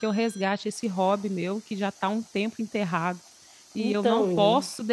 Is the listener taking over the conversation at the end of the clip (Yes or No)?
No